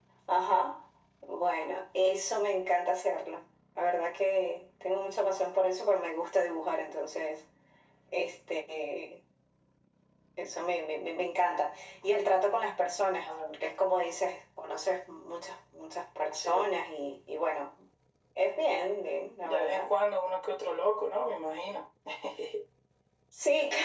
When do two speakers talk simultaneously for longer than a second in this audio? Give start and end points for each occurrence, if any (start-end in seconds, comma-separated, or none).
none